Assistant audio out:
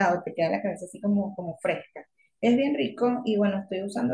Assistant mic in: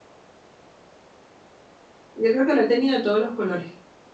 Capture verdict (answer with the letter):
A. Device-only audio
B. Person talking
B